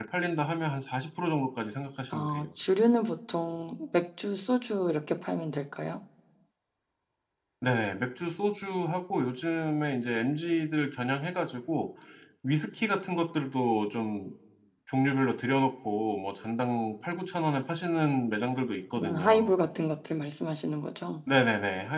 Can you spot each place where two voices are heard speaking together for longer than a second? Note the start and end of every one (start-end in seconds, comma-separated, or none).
none